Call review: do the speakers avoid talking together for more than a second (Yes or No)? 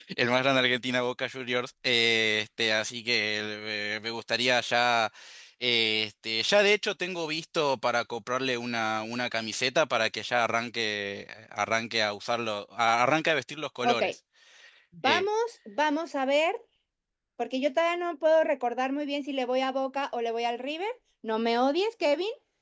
Yes